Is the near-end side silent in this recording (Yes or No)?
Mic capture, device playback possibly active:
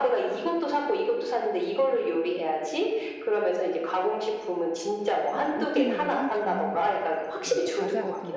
No